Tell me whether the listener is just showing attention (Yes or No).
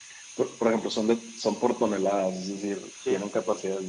Yes